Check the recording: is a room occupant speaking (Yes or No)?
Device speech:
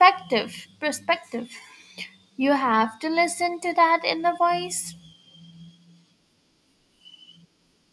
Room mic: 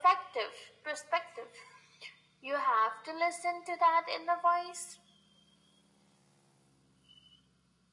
No